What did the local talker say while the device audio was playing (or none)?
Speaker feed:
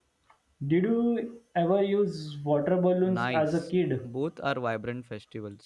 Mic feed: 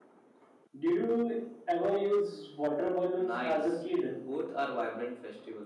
none